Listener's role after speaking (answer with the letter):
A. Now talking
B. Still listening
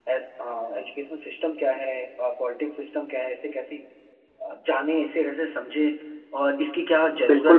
A